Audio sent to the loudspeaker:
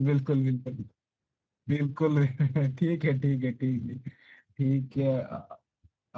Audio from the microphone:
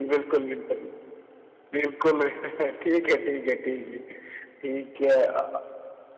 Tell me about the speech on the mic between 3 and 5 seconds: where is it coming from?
echo only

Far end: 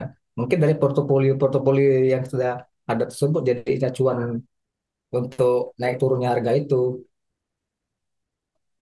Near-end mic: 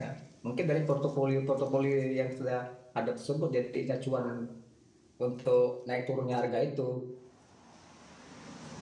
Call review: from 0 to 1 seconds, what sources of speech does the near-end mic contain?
echo only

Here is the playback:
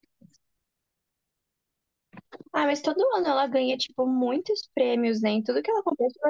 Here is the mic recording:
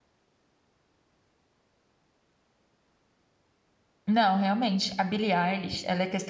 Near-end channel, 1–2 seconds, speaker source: neither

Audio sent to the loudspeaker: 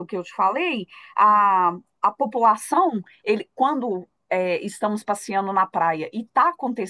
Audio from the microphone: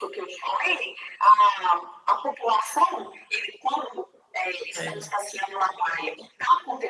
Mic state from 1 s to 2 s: echo only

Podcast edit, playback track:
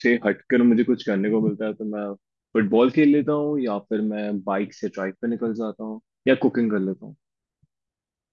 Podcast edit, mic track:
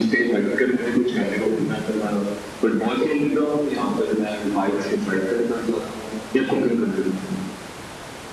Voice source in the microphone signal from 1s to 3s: echo only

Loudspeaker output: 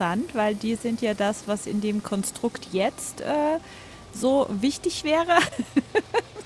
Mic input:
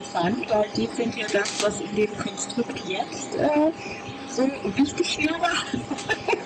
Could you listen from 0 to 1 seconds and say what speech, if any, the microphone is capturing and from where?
echo only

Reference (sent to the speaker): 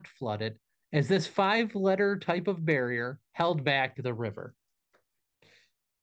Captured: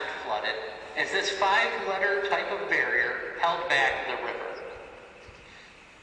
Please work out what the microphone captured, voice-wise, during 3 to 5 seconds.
echo only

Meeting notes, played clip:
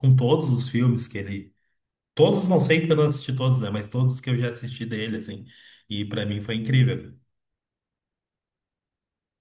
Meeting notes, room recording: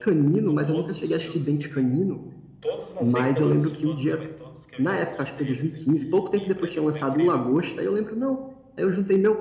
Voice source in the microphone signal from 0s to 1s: both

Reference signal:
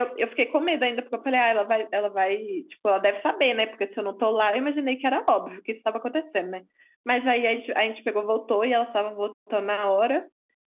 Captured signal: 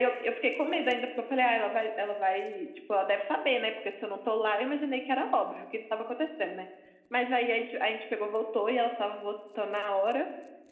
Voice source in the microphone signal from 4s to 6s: echo only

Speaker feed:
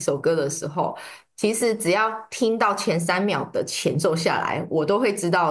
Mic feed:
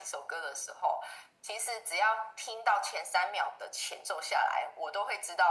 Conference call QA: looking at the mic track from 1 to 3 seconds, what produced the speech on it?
echo only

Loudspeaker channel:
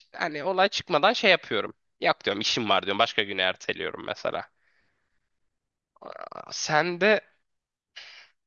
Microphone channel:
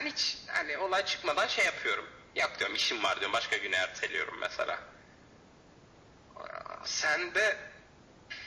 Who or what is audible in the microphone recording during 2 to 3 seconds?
echo only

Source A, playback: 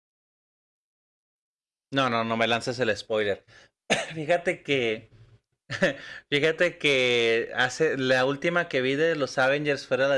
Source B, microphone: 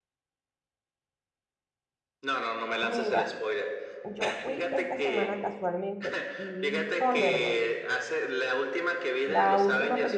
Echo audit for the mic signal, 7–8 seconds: both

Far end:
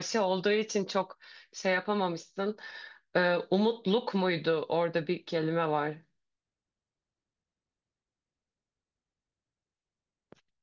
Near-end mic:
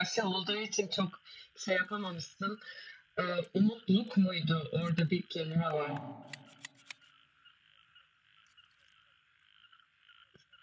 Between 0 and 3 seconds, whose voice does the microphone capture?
echo only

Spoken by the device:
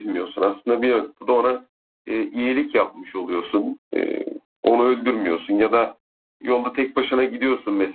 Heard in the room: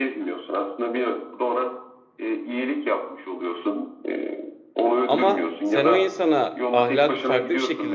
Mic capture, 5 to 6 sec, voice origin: both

